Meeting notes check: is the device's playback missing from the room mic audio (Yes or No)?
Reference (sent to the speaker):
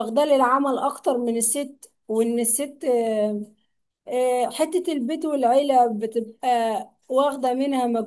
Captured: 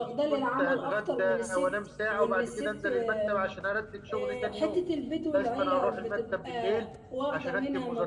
No